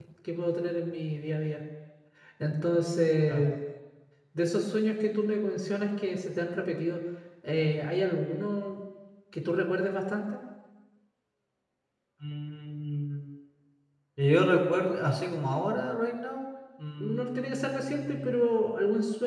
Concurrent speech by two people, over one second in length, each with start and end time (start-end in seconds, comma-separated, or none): 17.0-18.4